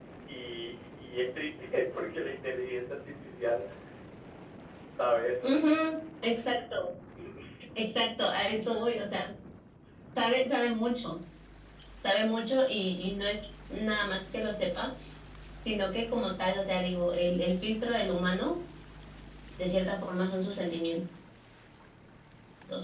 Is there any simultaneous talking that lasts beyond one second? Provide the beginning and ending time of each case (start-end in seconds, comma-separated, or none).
none